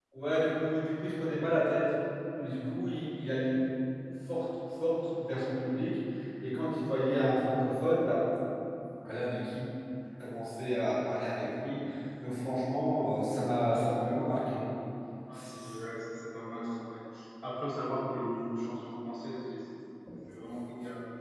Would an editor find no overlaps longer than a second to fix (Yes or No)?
Yes